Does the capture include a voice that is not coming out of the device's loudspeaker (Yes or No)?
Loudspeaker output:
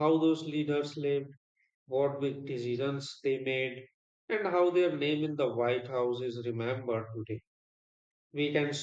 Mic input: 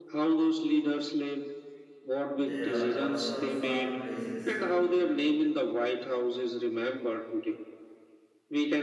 Yes